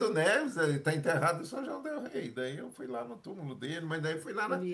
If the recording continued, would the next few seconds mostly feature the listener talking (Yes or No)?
No